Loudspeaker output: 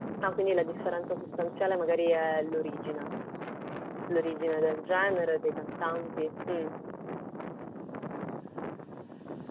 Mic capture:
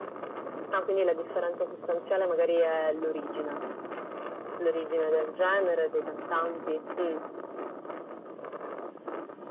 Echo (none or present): present